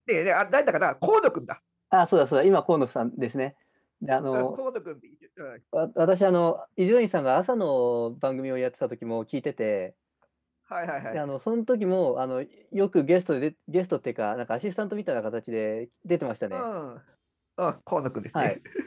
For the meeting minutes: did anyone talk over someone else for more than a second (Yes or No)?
No